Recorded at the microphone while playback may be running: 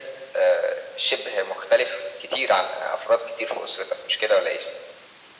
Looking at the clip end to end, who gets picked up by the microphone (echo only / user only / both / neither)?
echo only